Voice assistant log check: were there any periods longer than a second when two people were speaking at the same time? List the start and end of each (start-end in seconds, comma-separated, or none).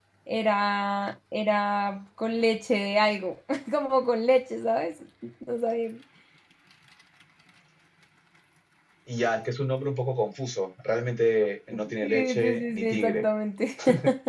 12.0-13.2